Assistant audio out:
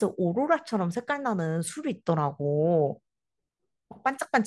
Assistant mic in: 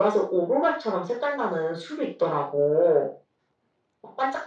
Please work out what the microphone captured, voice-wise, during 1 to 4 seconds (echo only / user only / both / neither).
echo only